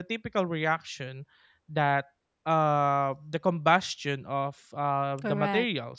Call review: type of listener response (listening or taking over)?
listening